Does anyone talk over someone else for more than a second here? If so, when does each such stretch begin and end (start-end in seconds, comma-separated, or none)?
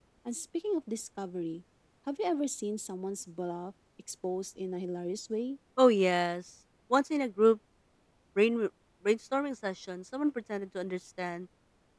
none